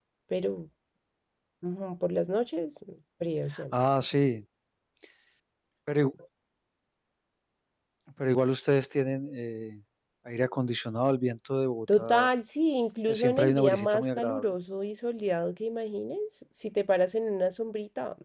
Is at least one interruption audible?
Yes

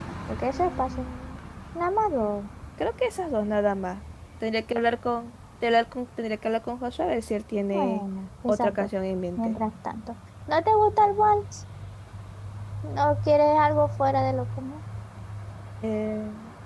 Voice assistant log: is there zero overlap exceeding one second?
Yes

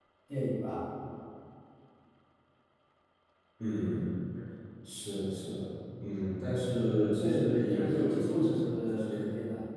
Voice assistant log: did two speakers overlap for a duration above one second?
Yes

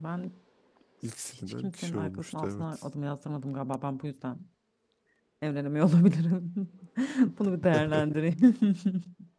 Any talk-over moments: Yes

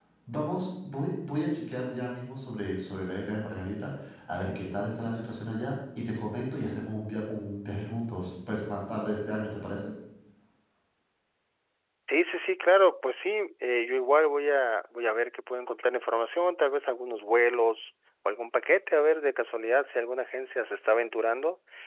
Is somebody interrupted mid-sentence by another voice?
No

